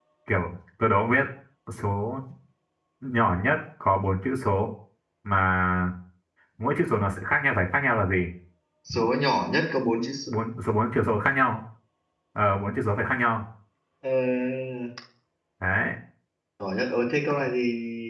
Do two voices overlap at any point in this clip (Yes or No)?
No